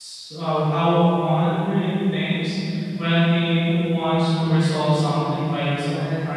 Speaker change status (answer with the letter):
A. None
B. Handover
B